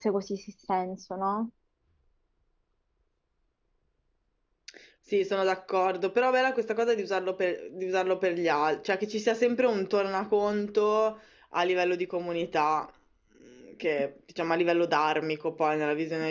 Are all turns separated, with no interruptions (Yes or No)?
Yes